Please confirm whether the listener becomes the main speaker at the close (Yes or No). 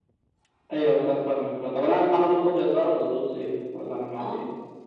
Yes